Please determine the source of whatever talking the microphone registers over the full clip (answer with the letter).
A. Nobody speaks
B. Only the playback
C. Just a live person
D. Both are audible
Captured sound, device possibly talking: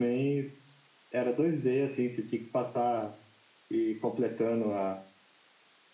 C